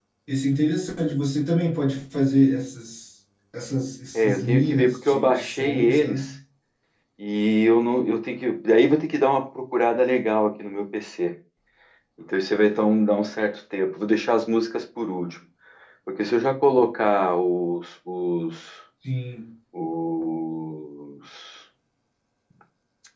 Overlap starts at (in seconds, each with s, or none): 4.1 s